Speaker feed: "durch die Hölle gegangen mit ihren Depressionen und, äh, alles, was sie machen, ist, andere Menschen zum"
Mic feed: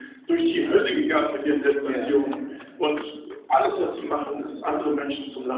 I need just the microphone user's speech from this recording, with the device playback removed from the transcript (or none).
Ja.